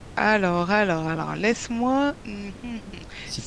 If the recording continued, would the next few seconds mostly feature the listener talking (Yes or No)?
No